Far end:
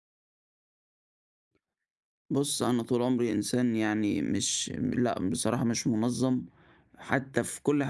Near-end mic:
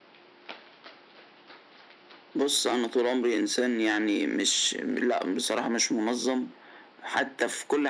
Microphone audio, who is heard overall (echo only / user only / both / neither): echo only